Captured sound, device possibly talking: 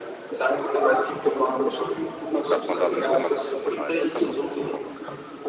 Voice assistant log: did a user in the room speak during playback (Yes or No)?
Yes